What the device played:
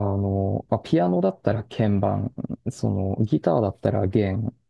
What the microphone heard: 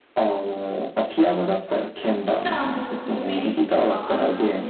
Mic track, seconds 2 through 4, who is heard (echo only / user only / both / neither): both